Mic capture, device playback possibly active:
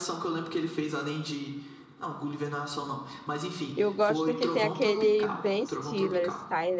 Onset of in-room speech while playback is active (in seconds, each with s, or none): 3.7 s